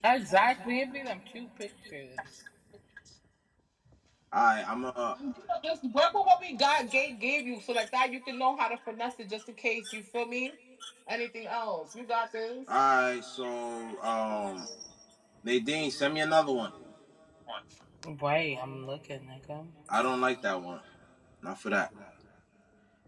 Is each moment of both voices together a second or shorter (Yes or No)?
Yes